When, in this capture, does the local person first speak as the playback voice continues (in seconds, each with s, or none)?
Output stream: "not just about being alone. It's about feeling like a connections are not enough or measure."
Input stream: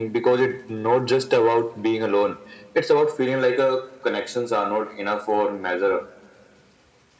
none